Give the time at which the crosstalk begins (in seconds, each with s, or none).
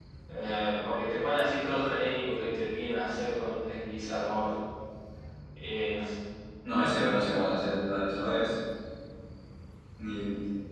none